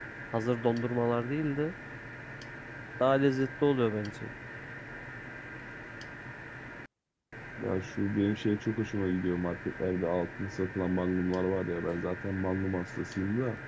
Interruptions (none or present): none